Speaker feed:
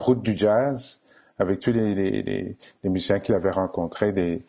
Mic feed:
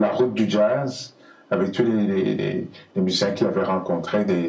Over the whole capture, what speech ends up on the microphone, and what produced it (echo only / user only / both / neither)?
echo only